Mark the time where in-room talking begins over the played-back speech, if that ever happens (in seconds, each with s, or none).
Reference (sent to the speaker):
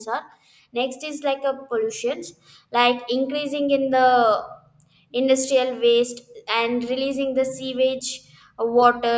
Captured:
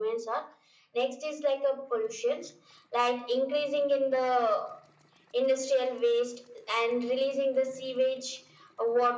none